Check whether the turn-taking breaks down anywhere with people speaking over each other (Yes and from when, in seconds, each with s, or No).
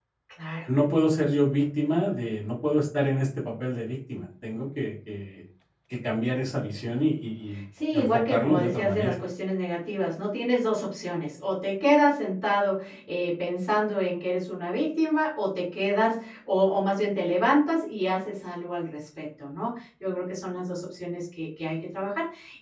Yes, from 7.8 s